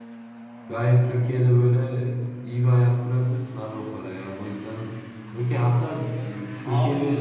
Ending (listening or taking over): taking over